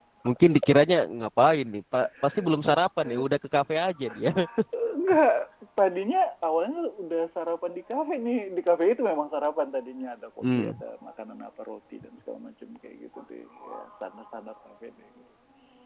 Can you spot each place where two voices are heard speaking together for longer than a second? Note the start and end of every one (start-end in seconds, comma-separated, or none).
none